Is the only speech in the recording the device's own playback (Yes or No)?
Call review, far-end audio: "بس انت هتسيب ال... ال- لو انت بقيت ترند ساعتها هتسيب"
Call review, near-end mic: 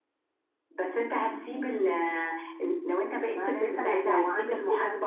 No